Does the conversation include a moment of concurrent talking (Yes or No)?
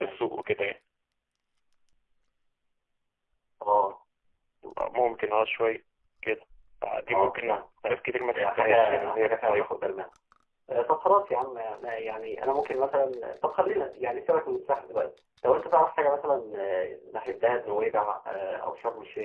Yes